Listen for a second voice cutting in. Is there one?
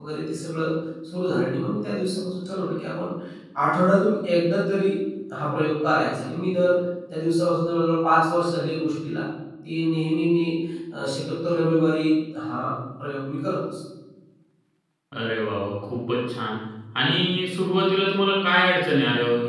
No

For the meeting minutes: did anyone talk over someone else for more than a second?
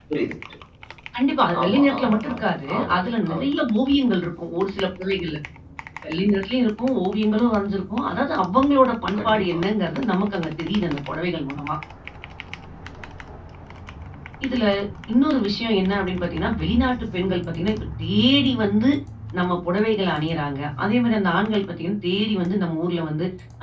Yes, from 1.6 s

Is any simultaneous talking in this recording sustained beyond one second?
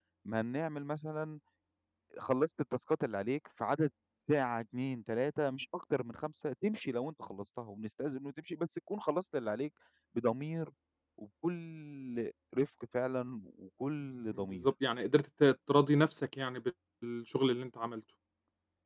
No

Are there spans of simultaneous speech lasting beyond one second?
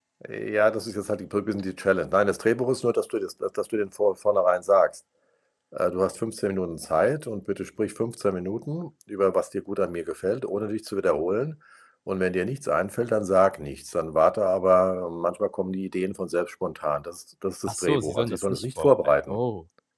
Yes, from 17.7 s

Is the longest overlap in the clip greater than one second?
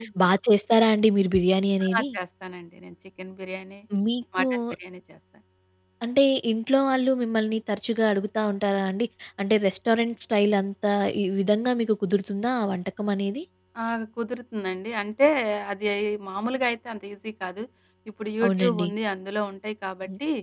No

